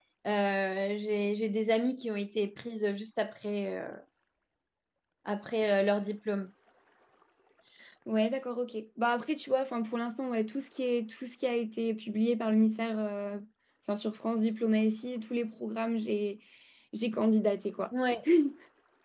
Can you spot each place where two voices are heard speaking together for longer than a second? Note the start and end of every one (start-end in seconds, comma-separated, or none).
none